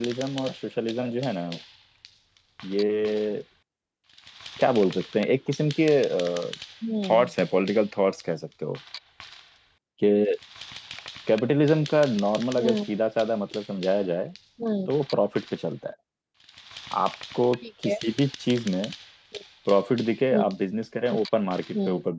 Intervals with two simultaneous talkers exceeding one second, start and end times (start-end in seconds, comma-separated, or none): none